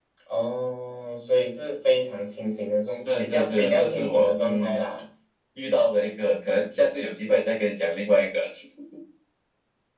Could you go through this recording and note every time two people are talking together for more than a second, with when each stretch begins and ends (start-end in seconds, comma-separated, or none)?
2.9-4.8